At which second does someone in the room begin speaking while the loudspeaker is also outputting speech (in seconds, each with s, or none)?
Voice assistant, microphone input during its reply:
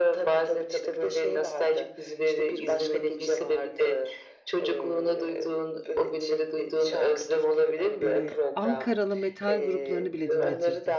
8.0 s